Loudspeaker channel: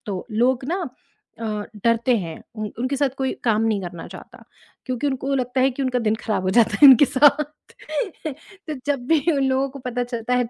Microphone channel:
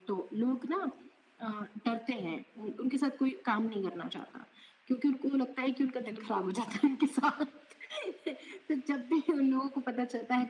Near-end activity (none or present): none